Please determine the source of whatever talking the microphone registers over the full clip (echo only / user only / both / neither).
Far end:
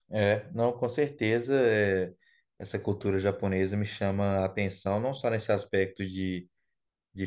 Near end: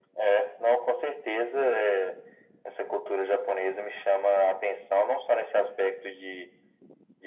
echo only